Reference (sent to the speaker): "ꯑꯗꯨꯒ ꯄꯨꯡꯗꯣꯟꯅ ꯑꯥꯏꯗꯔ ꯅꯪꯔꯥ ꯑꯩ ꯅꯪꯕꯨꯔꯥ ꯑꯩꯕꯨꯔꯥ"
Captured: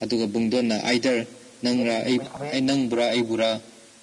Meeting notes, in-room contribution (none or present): present